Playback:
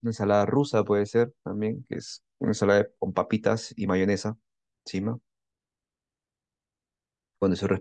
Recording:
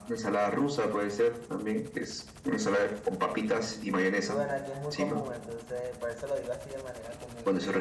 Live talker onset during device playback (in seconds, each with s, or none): 3.3 s